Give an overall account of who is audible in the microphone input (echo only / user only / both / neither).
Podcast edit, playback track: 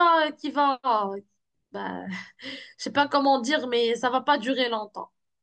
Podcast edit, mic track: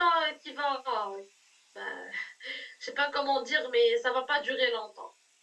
echo only